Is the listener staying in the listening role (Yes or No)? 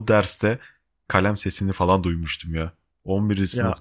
Yes